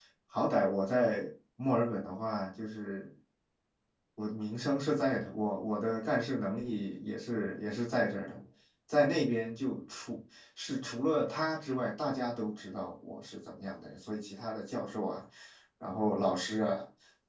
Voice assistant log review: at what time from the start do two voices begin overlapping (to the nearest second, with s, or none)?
none